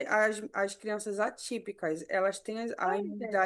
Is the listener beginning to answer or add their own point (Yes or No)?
No